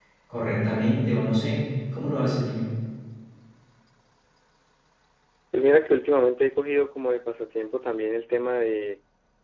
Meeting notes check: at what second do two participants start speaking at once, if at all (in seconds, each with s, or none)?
none